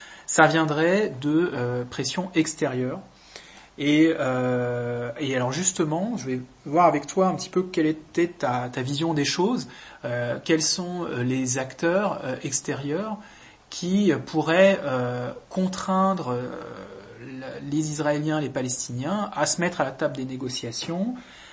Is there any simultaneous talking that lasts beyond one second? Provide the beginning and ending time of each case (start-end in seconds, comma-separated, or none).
none